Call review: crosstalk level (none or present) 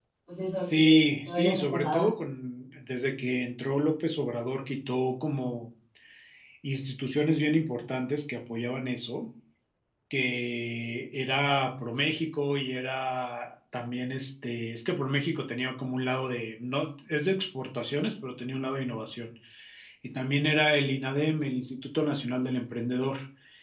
present